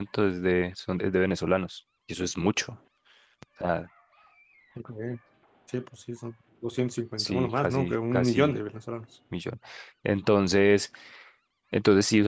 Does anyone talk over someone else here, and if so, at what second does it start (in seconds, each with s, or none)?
7.2 s